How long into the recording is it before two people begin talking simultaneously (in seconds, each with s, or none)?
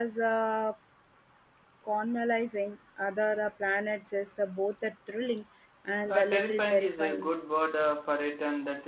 6.1 s